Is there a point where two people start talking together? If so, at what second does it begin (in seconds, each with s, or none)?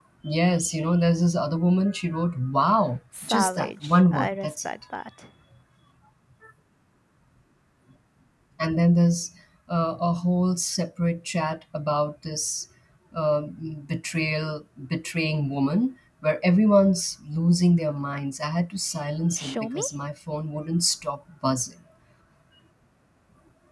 3.2 s